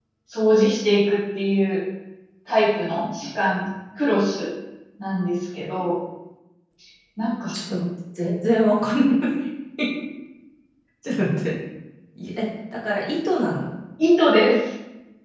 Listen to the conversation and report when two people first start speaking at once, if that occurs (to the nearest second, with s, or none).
none